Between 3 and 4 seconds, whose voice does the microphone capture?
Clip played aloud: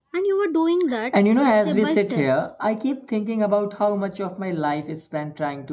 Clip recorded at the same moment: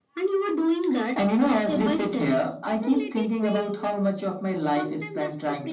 both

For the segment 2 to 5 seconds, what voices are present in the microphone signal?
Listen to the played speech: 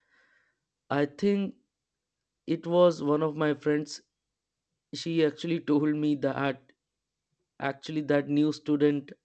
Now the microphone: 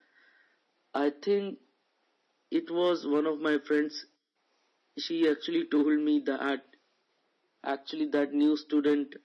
echo only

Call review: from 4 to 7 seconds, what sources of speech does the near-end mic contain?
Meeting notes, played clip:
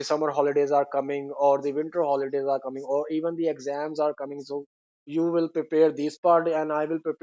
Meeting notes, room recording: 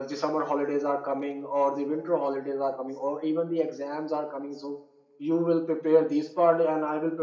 echo only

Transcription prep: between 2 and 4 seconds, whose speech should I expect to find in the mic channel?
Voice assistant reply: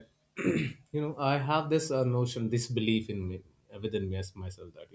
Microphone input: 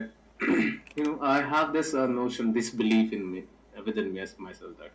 echo only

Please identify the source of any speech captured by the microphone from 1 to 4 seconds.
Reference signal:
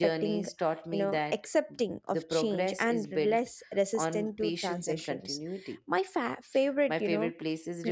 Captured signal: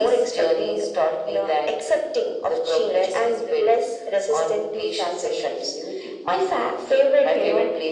echo only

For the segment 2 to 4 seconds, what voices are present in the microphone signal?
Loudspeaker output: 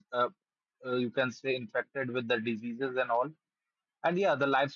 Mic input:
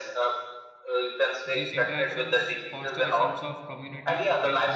both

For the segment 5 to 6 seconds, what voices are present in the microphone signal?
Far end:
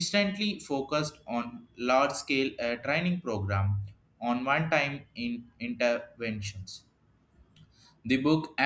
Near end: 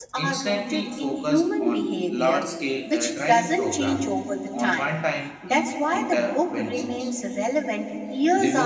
both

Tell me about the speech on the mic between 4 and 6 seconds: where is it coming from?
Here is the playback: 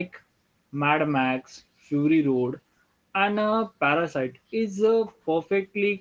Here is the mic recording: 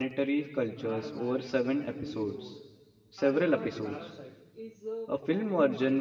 both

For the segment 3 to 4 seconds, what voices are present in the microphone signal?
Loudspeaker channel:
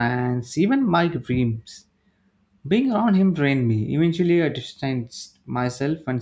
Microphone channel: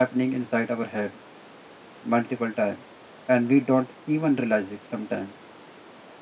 user only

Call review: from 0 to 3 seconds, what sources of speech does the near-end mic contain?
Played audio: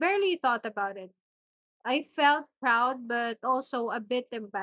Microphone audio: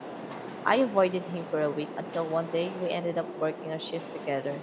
user only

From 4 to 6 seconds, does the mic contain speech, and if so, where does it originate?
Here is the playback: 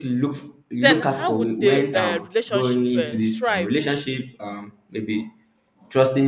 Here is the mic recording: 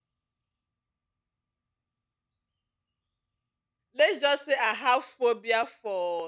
user only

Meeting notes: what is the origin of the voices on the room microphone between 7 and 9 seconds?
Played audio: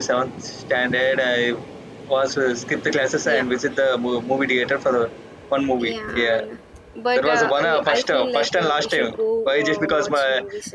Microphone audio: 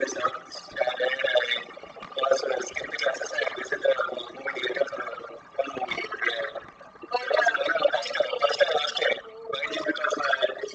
echo only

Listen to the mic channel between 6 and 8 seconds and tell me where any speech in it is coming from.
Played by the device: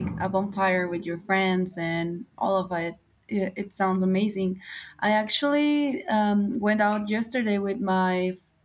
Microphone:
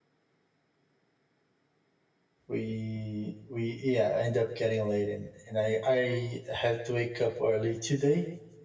user only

